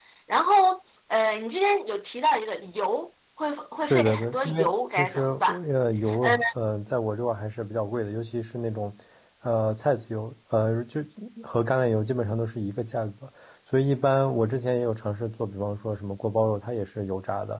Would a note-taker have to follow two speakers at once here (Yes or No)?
Yes